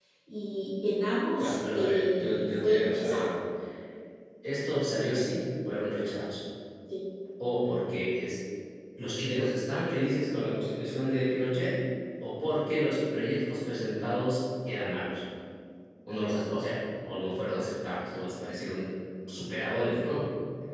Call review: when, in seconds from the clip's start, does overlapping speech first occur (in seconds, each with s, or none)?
1.4 s